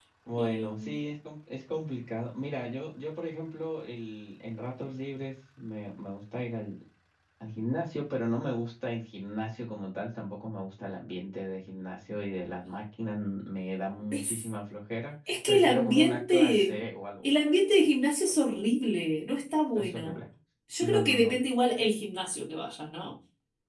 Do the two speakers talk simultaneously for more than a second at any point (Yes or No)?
Yes